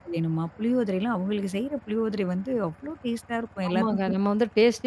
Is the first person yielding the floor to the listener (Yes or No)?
Yes